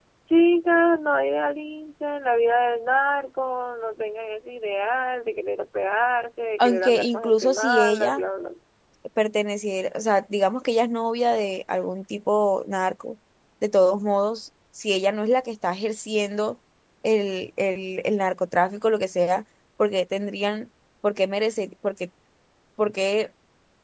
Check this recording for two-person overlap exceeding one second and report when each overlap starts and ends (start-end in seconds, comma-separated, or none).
6.6-8.2